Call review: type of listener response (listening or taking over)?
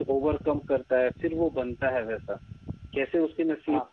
listening